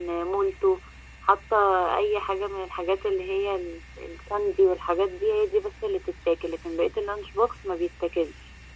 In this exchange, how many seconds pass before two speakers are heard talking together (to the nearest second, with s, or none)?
none